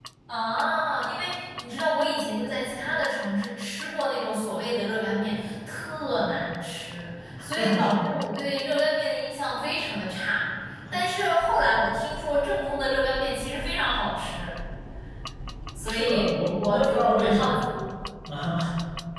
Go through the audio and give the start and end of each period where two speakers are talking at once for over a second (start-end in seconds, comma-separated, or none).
15.8-17.6